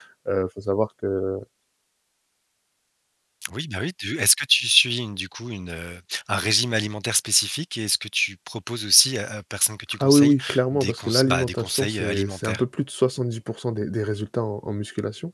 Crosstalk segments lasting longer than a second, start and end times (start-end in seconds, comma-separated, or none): 10.0-12.6